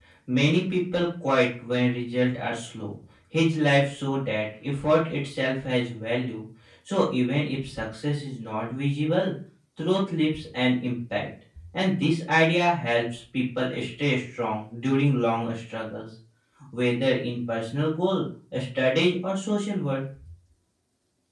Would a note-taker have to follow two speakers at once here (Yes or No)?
No